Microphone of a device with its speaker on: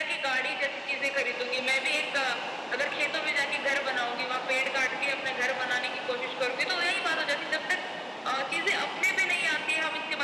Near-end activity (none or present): none